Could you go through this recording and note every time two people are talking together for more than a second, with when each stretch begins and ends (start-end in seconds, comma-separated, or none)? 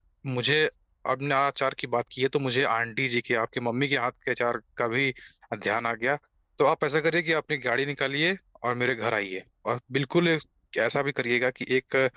none